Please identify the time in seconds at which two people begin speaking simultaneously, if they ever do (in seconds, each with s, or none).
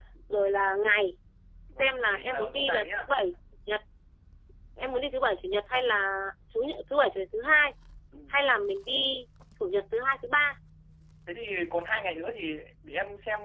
1.8 s